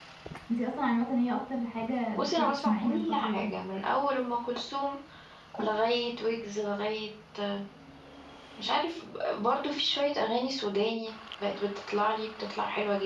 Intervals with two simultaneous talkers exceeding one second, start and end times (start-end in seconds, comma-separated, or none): 2.1-3.5